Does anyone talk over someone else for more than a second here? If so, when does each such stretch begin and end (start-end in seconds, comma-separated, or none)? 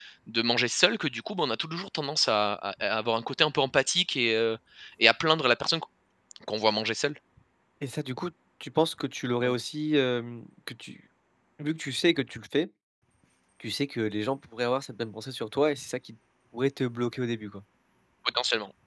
none